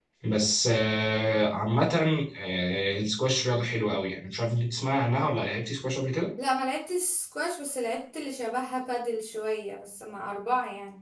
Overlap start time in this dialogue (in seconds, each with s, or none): none